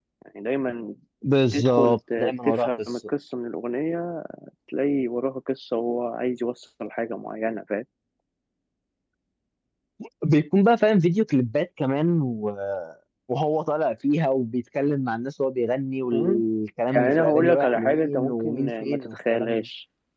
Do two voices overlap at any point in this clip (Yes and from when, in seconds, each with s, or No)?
Yes, from 1.5 s